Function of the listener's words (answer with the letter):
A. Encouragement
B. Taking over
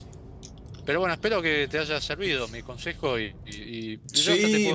B